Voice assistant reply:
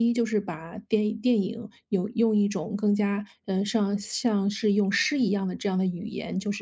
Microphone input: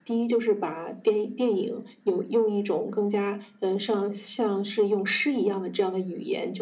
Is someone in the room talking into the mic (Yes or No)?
No